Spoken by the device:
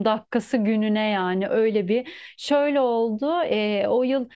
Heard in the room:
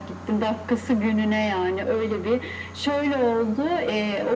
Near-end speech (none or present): none